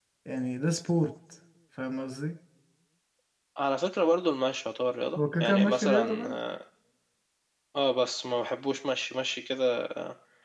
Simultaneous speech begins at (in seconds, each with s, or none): 5.2 s